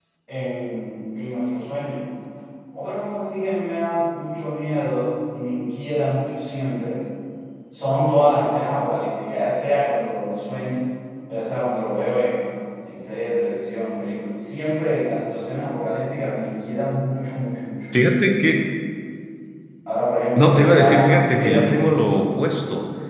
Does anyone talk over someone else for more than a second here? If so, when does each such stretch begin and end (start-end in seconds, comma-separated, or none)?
20.4-21.8